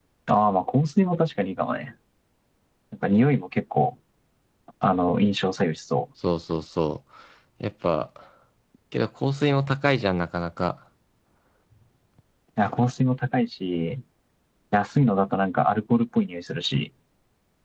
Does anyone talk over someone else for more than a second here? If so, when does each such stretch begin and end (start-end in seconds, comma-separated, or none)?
none